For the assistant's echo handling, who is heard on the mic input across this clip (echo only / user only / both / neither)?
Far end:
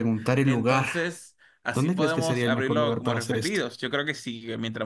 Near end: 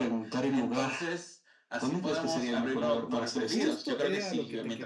both